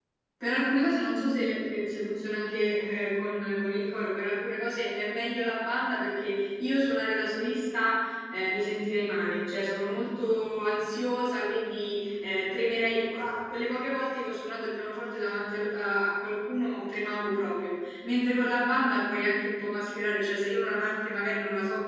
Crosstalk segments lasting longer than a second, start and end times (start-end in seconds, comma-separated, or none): none